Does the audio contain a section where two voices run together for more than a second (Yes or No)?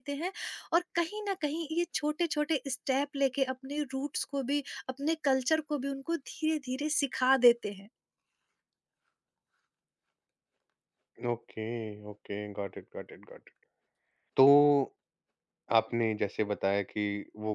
No